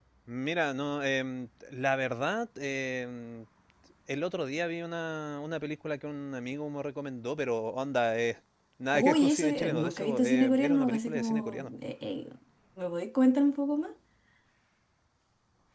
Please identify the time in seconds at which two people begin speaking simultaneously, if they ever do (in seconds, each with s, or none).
8.9 s